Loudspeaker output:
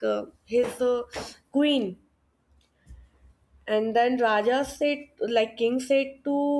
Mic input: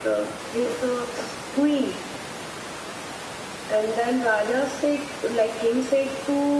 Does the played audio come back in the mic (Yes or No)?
Yes